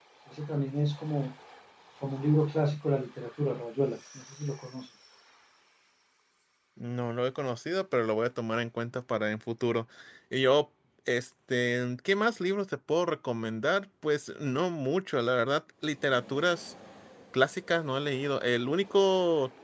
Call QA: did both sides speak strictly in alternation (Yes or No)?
Yes